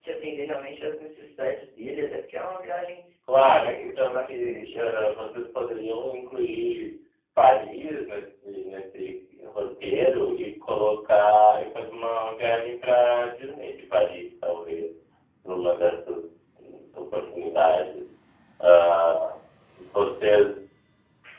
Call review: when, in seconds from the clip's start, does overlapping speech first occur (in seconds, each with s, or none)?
3.3 s